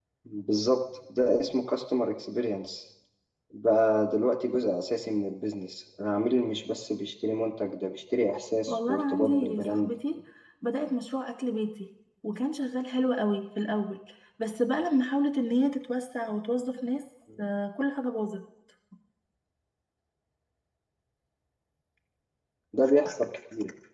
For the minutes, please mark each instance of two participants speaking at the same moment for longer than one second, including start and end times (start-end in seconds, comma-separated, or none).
8.7-9.9